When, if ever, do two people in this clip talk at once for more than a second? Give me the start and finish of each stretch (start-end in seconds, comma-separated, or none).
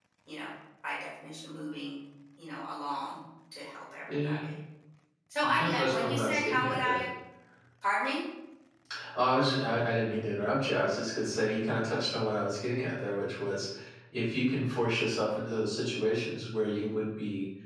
5.4-7.0